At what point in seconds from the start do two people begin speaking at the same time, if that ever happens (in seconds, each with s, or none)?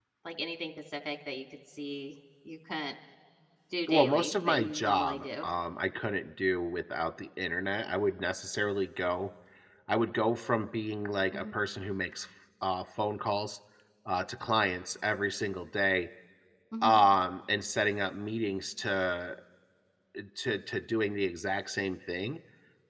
3.9 s